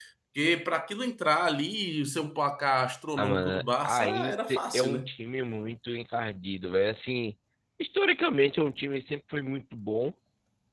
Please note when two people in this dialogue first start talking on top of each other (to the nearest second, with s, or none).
3 s